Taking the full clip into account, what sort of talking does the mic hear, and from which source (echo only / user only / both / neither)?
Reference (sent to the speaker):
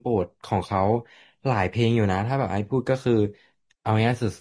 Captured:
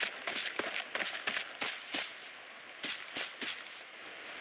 neither